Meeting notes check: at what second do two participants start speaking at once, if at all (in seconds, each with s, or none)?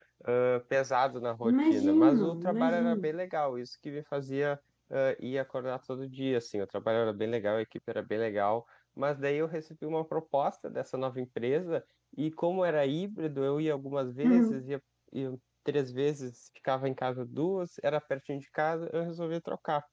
1.5 s